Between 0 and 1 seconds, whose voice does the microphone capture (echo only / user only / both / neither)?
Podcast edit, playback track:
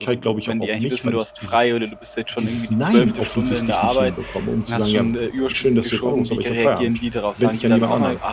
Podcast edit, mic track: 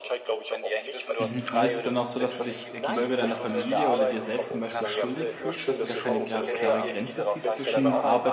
echo only